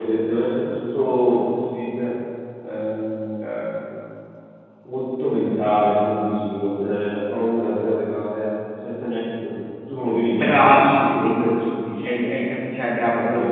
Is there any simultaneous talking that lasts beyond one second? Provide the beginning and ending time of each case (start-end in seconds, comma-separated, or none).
10.3-11.5